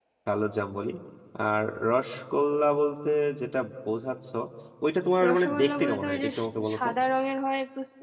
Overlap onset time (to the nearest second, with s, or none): 5 s